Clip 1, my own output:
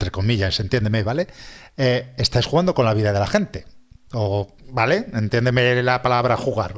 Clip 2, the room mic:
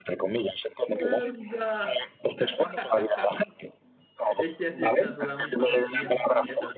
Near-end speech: present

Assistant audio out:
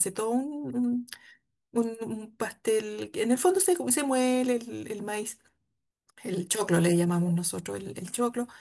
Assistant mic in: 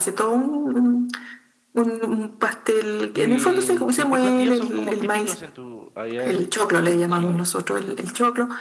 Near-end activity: present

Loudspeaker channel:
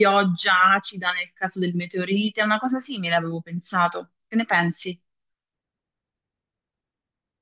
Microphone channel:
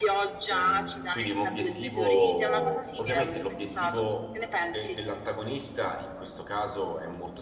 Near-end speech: present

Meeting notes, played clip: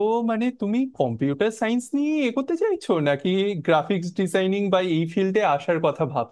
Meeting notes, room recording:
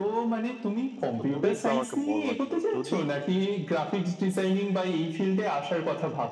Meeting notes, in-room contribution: present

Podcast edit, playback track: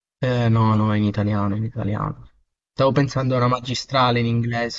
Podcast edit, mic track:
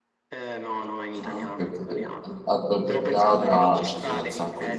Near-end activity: present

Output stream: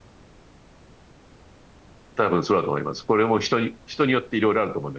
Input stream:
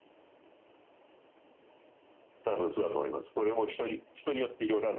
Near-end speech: none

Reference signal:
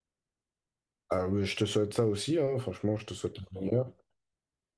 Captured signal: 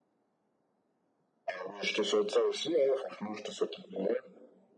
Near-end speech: none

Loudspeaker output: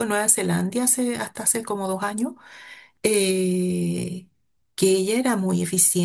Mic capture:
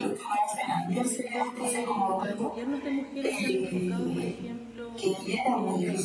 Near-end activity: present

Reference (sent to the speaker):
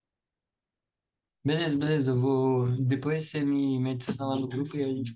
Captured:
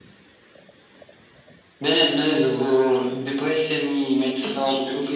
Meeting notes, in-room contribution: none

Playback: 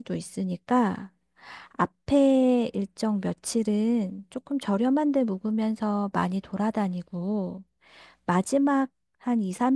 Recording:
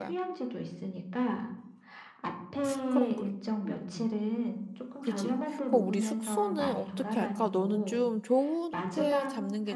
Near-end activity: present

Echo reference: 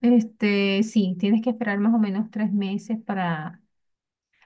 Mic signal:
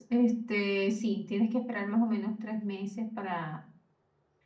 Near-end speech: none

